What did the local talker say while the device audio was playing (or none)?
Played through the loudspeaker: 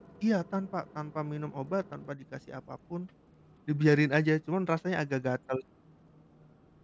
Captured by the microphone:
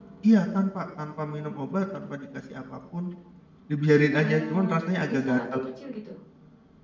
eee, besar atau kecil gitu